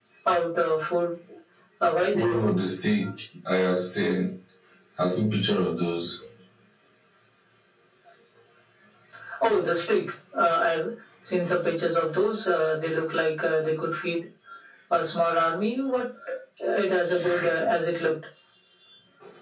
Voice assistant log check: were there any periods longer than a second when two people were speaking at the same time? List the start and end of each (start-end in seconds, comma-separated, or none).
none